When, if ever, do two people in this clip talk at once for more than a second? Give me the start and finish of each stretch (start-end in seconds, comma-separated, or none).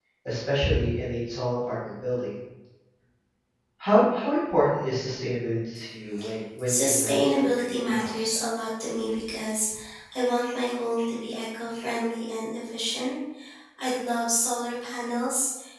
6.7-8.4